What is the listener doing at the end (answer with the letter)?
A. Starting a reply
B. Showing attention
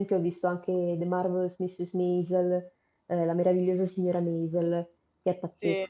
A